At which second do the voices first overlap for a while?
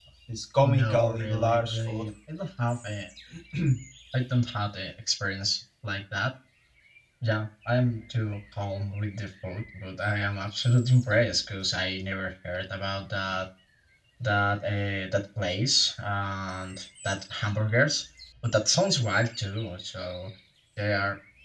0.6 s

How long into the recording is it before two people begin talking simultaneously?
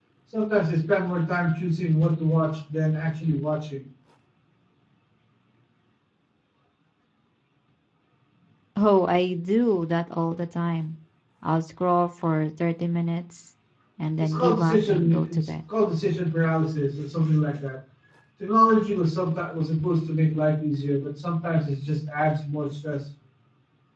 14.2 s

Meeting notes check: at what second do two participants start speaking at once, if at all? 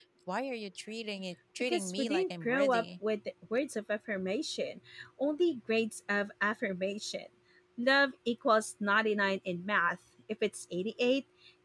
1.6 s

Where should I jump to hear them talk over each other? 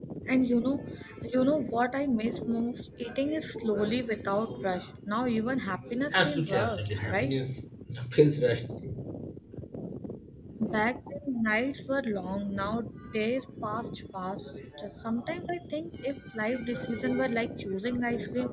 6.1 s

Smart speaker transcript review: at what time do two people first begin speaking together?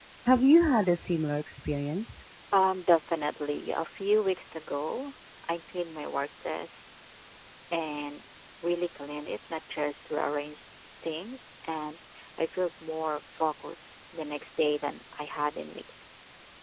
none

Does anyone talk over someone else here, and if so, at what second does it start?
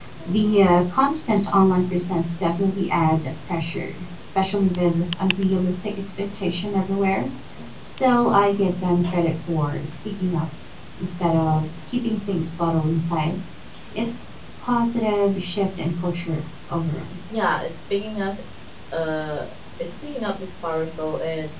none

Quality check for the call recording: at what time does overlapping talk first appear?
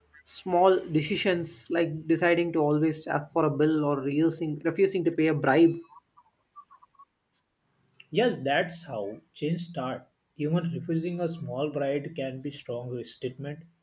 none

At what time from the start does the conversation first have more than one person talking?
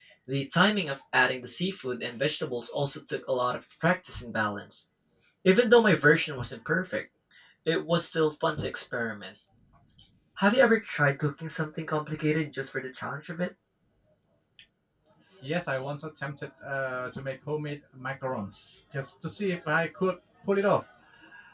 none

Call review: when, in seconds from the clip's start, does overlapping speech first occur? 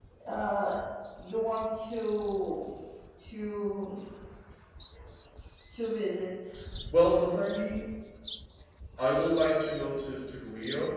none

